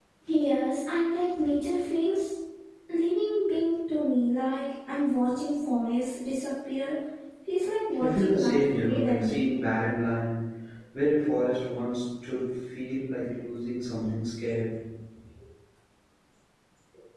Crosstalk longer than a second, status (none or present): present